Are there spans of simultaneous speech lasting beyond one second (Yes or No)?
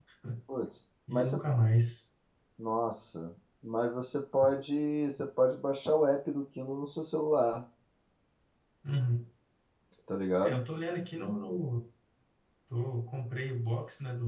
No